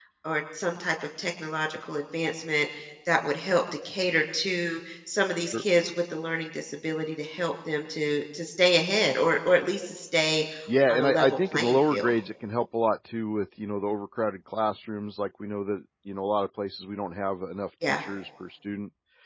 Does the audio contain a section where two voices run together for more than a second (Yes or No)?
Yes